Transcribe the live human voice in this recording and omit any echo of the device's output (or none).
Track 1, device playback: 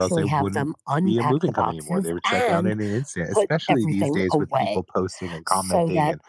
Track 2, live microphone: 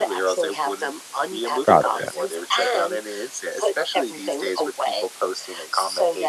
Gotcha.